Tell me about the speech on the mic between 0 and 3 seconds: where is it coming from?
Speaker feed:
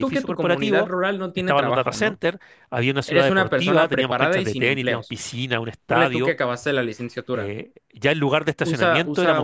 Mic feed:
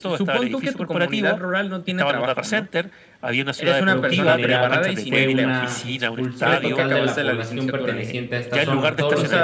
echo only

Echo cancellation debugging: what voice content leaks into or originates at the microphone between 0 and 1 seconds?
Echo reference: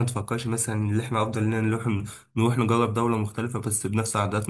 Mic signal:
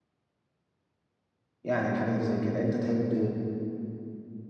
neither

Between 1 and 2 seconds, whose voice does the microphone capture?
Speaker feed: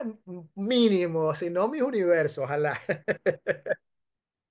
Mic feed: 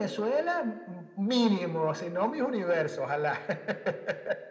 echo only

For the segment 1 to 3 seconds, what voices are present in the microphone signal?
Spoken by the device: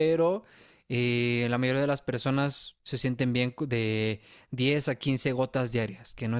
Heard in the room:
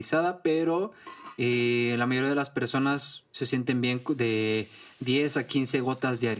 echo only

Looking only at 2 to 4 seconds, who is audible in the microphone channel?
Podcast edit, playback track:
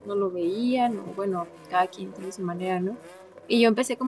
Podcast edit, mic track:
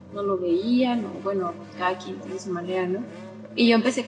echo only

